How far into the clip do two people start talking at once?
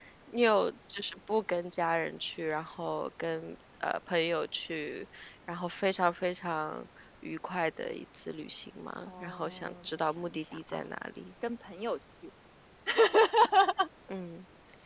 9.1 s

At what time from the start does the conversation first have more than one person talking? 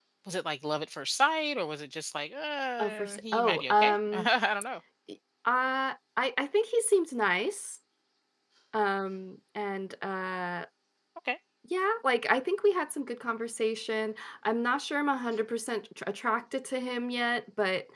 2.8 s

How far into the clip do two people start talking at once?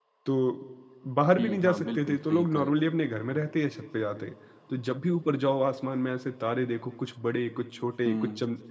1.4 s

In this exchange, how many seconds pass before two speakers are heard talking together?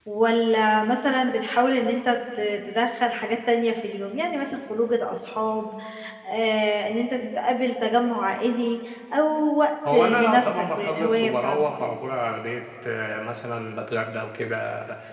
9.8 s

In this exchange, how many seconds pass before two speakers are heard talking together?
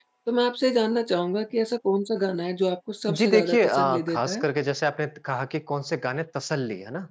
3.1 s

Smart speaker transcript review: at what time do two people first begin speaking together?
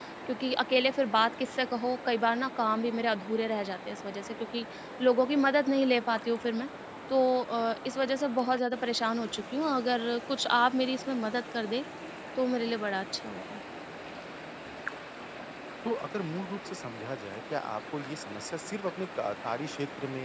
none

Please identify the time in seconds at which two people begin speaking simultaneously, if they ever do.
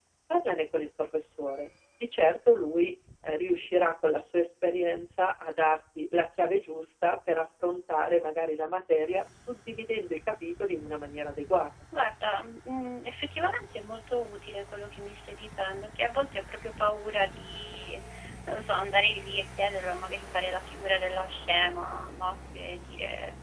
none

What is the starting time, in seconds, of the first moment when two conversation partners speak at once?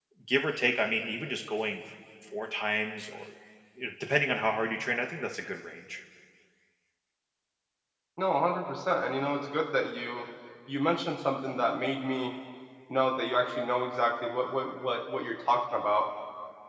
none

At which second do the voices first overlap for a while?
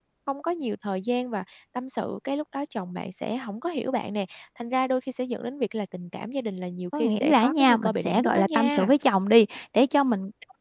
6.9 s

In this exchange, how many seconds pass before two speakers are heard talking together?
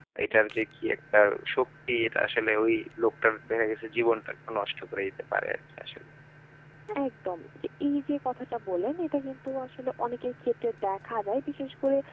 none

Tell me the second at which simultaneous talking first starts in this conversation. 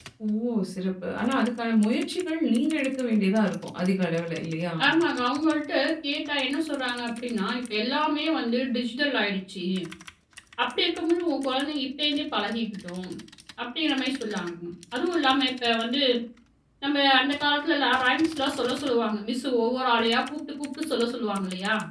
none

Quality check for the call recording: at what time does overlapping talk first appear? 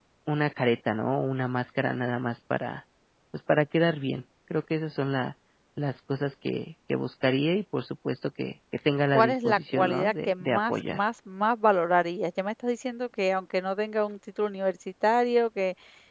9.1 s

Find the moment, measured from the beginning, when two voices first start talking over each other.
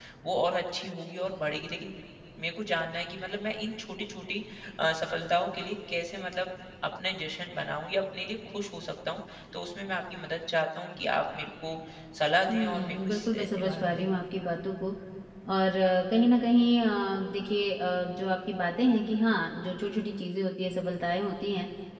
12.5 s

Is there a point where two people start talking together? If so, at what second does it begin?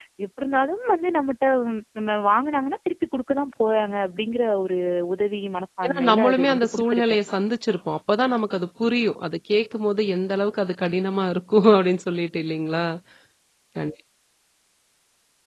5.8 s

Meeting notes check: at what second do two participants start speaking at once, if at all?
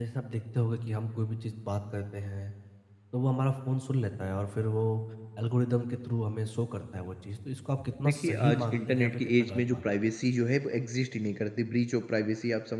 8.0 s

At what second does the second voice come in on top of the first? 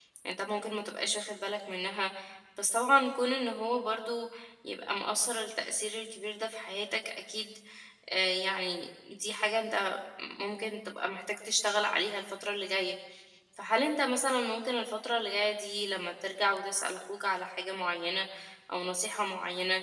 none

